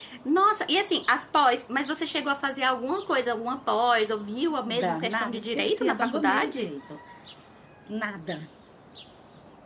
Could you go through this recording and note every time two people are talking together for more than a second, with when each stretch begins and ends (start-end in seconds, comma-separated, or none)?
4.7-6.7